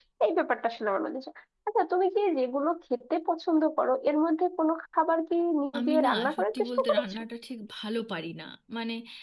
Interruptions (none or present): present